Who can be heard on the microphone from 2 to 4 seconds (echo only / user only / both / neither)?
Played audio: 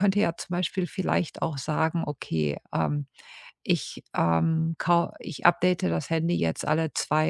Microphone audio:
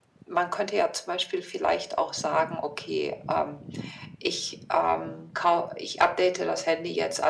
echo only